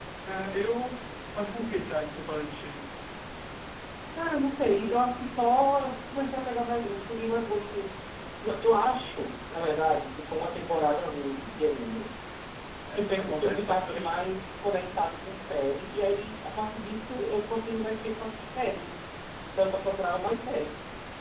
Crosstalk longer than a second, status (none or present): present